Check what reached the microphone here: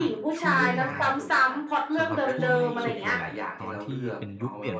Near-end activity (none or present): present